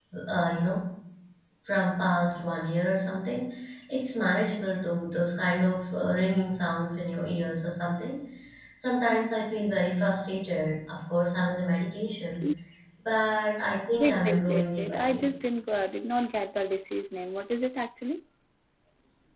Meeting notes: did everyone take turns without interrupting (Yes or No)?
No